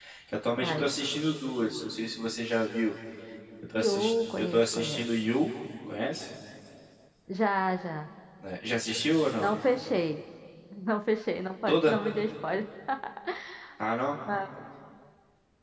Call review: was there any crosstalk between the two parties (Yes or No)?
Yes